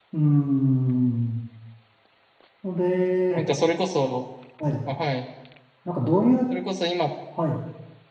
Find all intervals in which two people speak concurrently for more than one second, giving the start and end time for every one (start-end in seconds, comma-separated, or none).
none